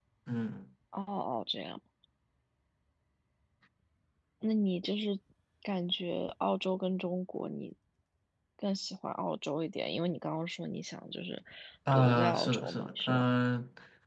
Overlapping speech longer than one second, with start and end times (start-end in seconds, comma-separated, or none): 11.9-13.2